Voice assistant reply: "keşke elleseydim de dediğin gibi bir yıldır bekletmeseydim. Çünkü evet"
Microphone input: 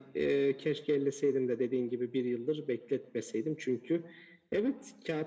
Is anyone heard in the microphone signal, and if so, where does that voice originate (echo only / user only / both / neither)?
echo only